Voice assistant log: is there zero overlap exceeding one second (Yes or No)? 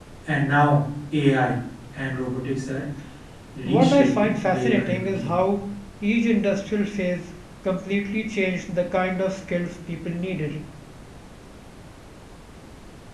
No